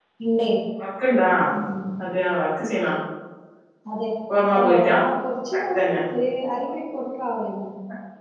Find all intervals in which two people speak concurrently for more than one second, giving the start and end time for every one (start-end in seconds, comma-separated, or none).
none